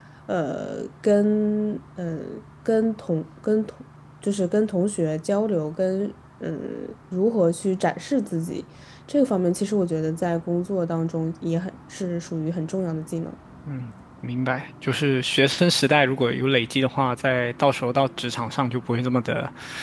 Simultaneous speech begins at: none

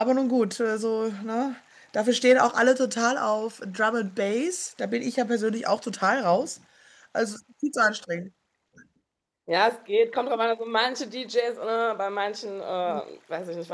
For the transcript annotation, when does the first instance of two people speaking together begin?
none

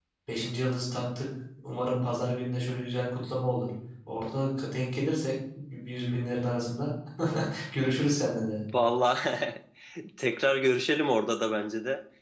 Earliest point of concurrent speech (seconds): none

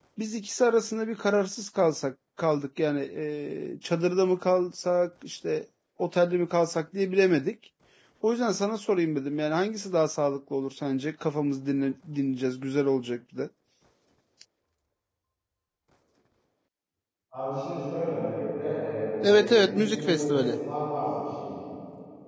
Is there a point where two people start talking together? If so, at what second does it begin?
19.2 s

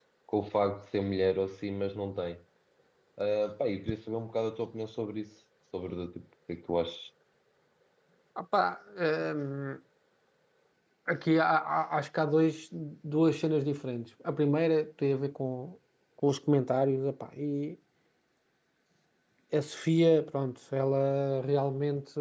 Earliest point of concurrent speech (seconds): none

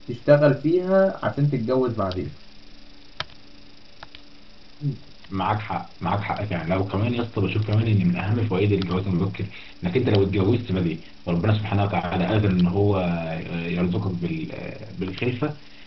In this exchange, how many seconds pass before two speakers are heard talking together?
none

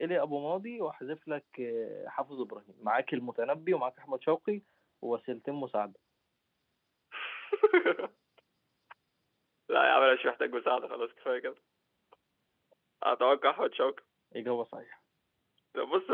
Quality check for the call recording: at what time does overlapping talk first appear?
none

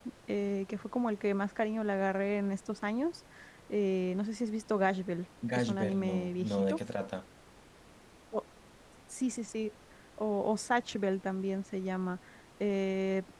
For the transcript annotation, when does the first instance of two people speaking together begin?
5.4 s

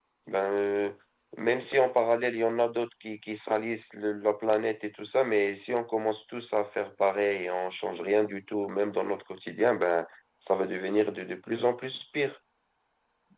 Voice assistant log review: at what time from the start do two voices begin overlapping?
none

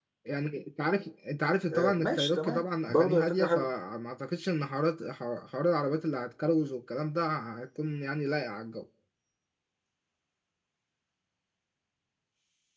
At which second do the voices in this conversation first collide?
1.7 s

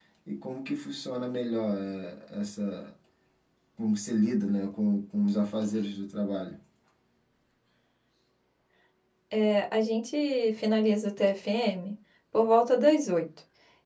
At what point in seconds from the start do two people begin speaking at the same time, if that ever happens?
none

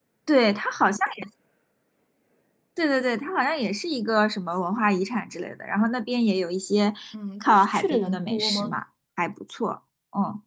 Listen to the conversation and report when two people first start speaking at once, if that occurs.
7.4 s

